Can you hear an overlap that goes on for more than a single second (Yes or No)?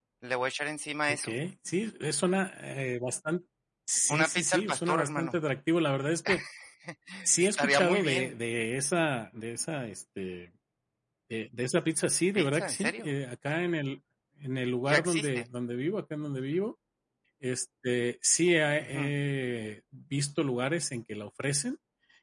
Yes